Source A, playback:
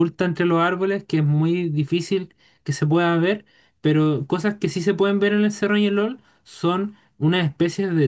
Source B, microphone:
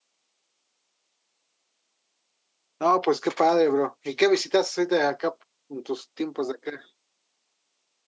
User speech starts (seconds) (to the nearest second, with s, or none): 3 s